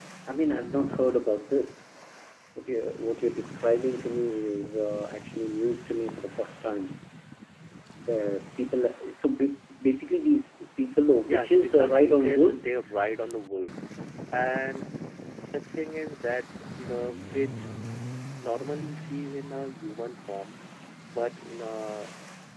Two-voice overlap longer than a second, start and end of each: 11.3-12.8

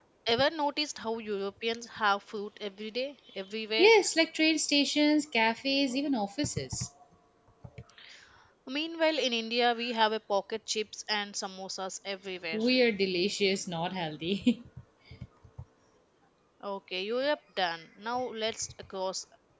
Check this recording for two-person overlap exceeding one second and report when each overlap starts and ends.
none

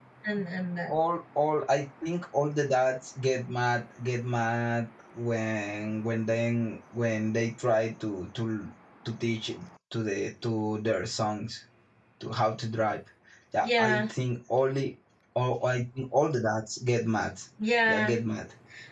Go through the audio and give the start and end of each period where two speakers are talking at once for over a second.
none

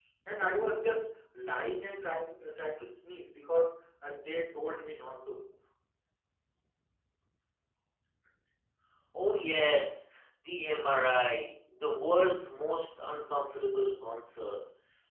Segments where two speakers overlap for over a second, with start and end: none

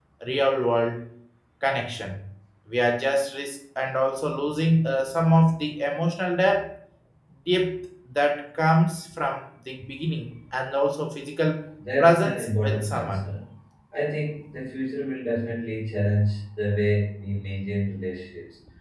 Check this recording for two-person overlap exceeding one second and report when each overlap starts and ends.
12.0-13.3

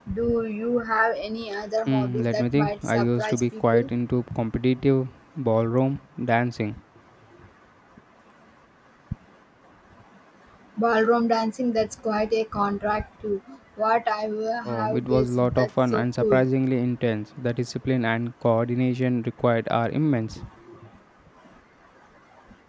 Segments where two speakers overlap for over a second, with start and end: 1.9-3.9, 14.7-16.5

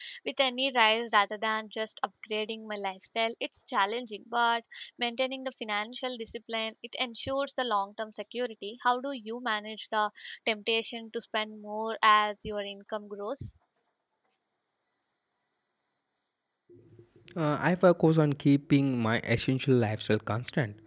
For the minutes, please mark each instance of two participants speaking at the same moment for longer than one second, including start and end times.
none

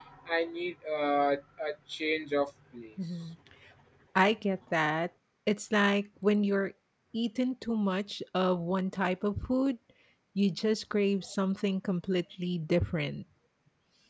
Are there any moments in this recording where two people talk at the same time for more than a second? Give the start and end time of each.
none

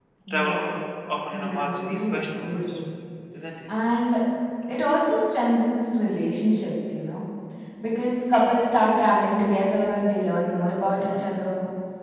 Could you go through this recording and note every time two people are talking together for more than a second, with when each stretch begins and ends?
1.3-2.8

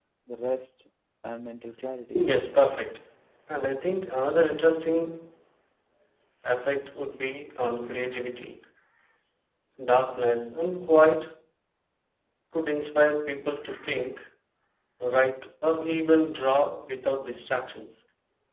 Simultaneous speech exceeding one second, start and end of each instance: none

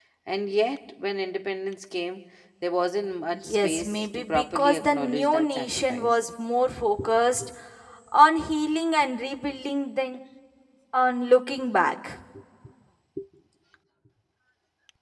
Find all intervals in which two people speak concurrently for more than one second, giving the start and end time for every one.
3.3-6.1

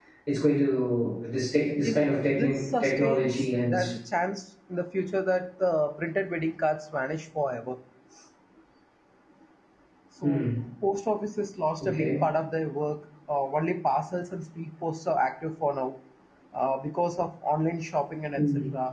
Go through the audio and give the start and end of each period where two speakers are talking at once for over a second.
1.8-3.9

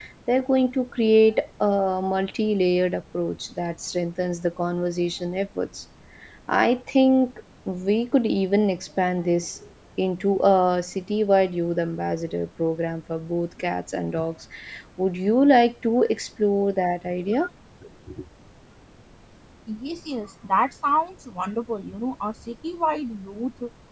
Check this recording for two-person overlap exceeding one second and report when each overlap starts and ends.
none

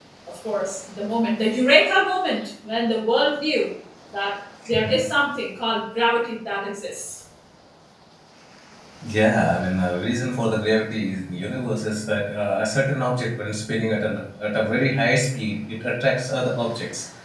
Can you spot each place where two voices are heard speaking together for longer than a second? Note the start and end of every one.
none

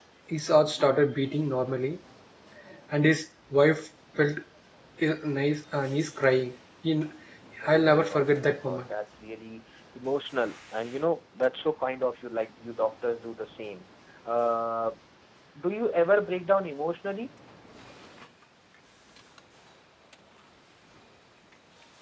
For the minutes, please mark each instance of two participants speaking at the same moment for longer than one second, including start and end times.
7.6-8.9

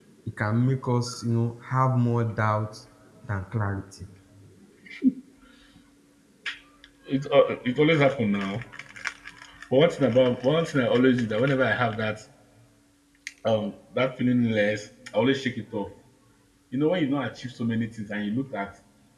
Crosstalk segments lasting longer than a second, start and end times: none

